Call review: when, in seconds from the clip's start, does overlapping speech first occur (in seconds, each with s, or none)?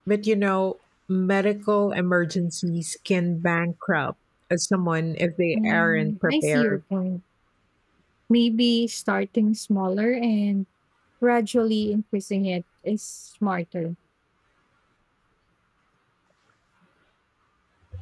5.5 s